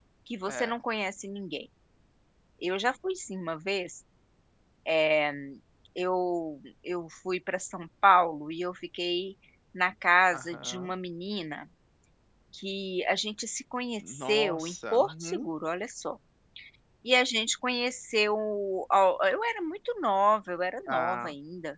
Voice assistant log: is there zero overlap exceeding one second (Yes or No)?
No